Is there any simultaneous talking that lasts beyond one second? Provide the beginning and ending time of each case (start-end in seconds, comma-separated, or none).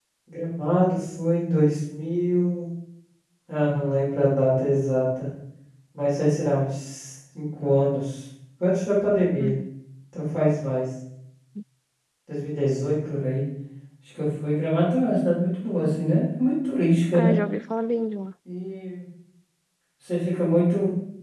none